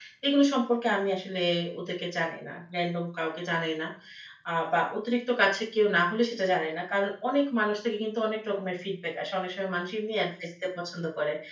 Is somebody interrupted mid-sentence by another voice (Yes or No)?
No